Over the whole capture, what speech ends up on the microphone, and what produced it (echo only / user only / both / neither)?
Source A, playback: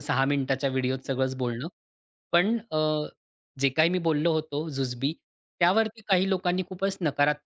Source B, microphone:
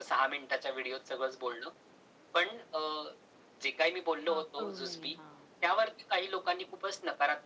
both